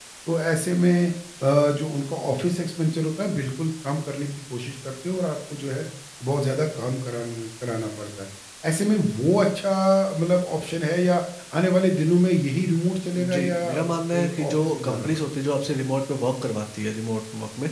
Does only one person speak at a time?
No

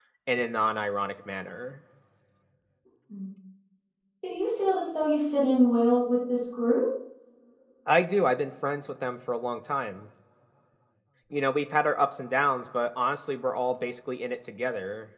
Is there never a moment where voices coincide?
Yes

